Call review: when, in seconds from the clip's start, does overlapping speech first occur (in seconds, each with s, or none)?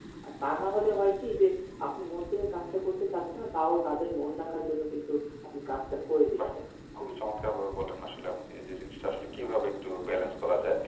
none